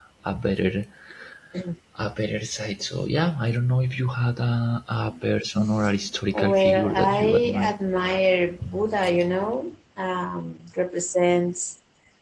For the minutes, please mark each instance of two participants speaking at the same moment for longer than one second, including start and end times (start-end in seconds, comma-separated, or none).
6.3-7.7